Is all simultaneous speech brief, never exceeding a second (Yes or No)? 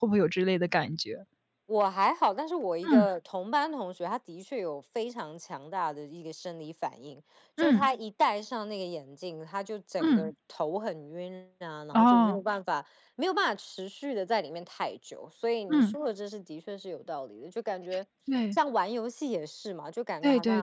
Yes